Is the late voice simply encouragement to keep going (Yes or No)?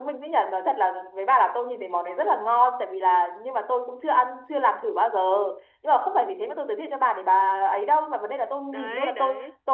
Yes